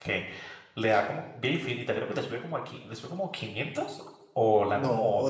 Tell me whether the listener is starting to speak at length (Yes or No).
Yes